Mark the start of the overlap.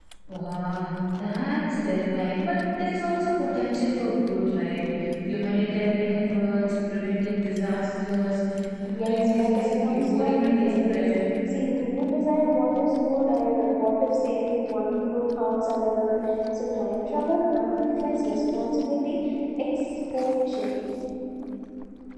8.9 s

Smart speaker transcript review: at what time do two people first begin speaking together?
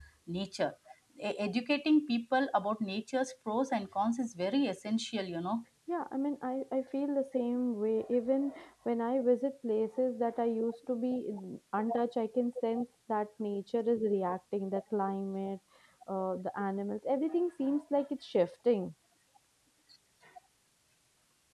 none

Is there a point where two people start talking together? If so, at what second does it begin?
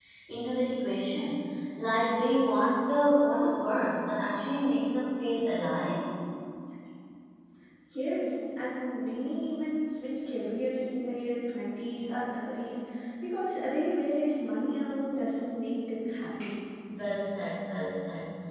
none

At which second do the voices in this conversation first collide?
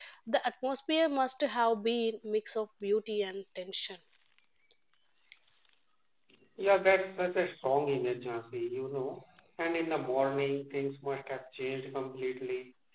none

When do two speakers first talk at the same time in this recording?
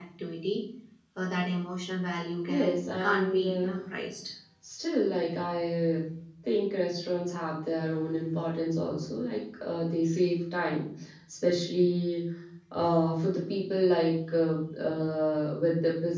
2.5 s

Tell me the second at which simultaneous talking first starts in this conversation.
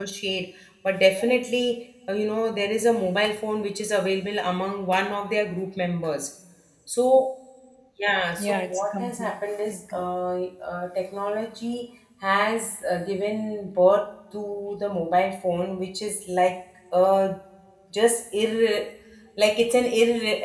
8.4 s

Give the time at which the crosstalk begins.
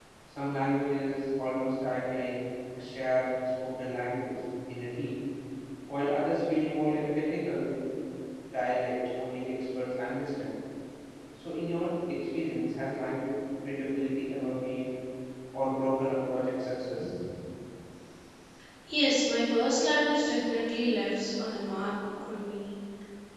none

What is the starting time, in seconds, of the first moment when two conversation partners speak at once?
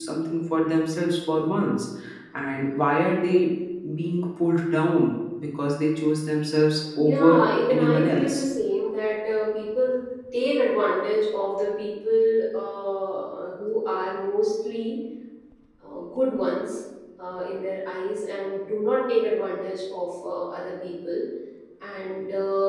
7.0 s

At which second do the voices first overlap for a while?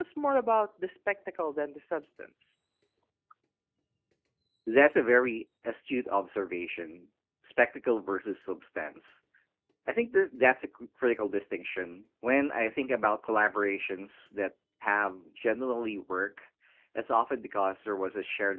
none

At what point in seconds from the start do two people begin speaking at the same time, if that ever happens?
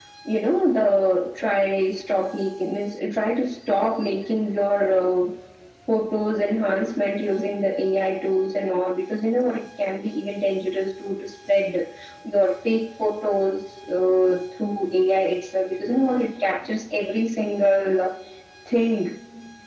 none

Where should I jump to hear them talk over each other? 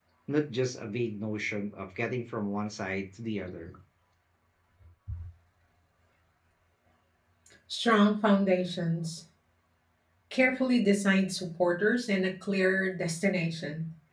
none

